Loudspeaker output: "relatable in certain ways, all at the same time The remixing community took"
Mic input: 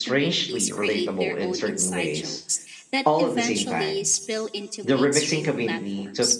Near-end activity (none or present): present